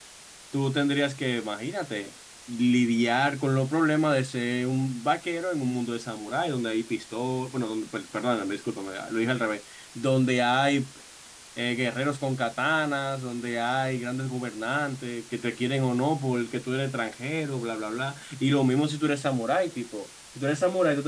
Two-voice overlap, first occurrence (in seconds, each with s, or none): none